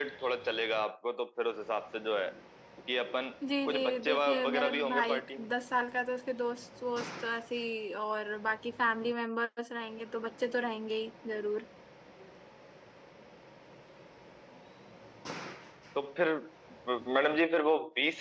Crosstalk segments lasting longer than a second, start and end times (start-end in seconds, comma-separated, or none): 3.6-5.5